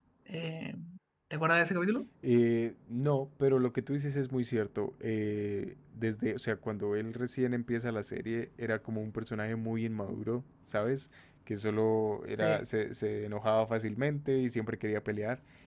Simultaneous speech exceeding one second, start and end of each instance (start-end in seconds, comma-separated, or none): none